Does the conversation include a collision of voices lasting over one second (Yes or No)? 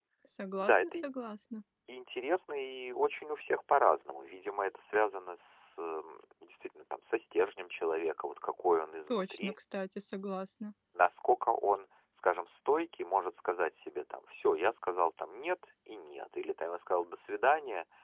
No